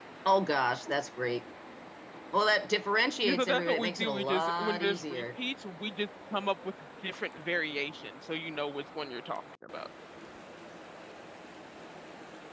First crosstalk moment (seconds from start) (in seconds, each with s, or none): 3.2 s